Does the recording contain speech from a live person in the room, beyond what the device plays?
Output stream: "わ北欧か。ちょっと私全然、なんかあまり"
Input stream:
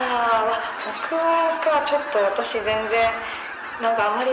No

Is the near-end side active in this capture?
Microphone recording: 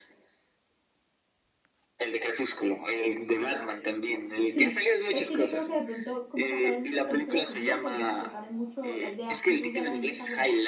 Yes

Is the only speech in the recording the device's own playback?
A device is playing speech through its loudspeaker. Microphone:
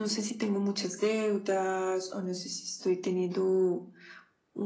Yes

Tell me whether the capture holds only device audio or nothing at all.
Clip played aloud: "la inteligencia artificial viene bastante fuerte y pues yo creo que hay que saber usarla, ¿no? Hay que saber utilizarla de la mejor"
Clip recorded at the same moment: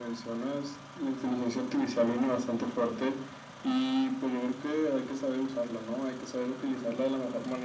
Yes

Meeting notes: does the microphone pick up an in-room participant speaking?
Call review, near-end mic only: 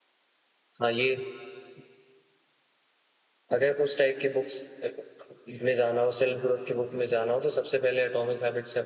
Yes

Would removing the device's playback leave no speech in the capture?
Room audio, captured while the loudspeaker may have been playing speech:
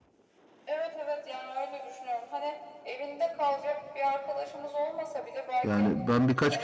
No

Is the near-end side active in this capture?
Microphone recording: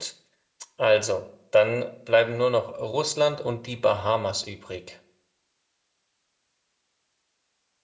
Yes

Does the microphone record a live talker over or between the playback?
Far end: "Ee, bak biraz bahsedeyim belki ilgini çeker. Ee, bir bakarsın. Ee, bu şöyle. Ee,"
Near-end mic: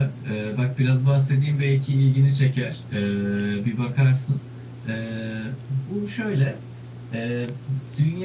No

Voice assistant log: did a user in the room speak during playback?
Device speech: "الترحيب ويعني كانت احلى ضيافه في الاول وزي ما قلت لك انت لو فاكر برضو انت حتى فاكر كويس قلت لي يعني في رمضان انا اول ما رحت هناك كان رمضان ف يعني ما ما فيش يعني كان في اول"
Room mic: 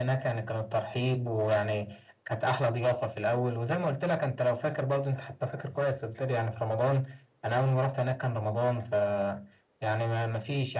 No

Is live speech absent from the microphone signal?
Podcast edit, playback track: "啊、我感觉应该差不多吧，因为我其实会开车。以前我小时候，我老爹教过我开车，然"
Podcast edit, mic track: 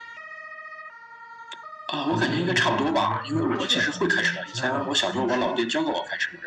No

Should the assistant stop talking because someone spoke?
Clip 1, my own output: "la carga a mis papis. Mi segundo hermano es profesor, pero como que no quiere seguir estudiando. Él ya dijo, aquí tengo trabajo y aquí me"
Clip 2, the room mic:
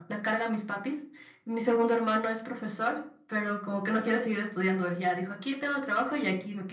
No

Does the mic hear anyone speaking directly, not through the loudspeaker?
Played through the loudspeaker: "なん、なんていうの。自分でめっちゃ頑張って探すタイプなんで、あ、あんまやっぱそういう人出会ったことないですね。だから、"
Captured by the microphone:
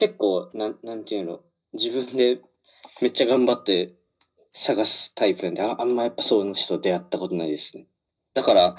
No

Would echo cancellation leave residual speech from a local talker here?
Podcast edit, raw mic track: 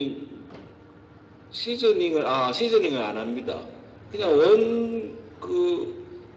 Yes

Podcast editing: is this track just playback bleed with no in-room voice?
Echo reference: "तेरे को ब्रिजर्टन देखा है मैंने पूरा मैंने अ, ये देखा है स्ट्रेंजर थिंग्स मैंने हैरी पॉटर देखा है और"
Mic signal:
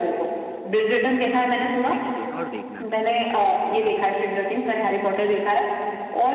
No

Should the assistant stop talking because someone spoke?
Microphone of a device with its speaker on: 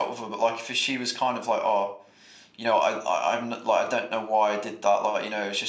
Yes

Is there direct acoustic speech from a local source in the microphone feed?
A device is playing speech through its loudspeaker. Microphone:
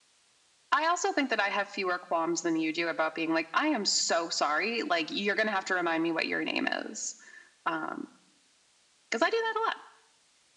No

